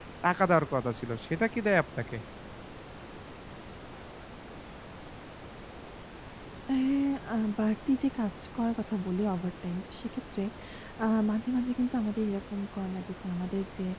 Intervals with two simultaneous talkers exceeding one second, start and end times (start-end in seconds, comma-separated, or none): none